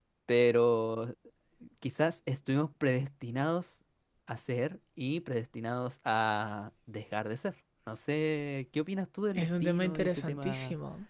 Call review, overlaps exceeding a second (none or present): present